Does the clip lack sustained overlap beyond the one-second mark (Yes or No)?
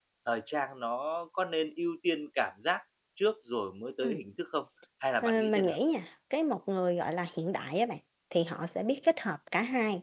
Yes